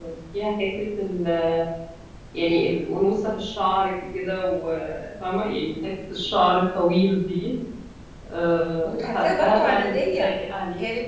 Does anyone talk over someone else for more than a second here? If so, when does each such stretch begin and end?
8.9-10.3

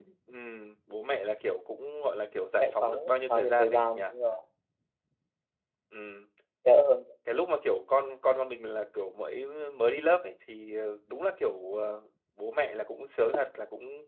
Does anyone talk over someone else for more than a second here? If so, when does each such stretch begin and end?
2.6-4.0

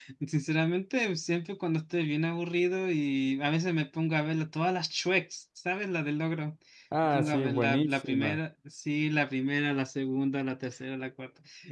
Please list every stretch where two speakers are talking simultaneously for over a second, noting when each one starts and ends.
7.0-8.4

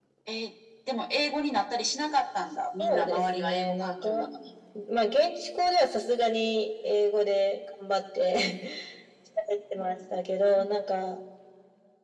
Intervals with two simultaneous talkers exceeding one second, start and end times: 2.8-4.3

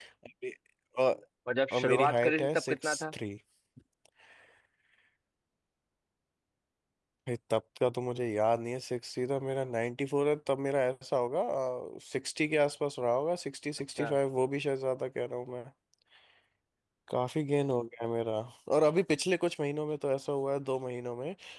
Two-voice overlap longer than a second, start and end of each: 1.7-3.1

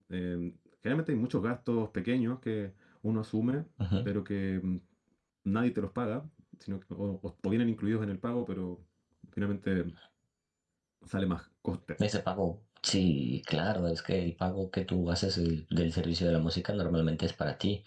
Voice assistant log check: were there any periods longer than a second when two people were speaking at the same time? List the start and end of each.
none

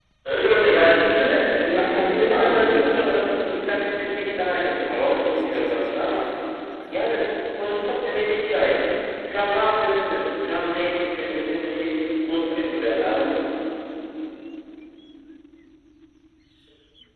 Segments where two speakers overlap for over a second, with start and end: 1.7-3.1

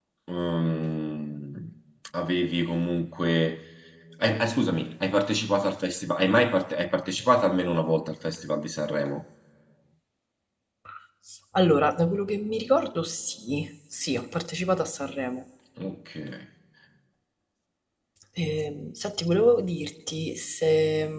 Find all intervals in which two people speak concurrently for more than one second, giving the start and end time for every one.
none

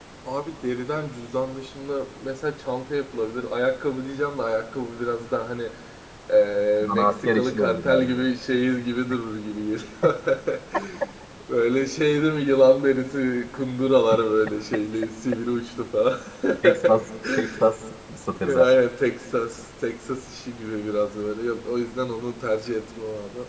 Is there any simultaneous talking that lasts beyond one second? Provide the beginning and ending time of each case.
6.8-8.2

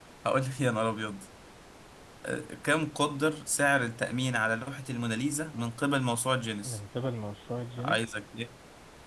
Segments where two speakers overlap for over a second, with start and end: none

